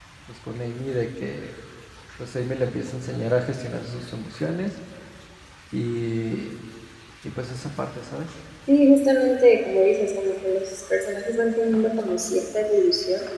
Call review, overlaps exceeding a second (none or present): none